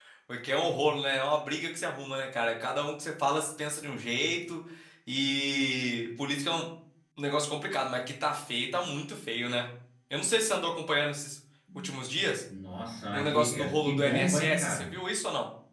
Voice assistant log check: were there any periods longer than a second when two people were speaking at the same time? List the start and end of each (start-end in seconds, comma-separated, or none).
13.1-14.9